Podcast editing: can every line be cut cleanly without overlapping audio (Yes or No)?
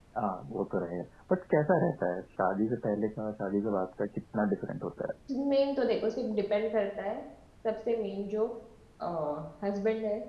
Yes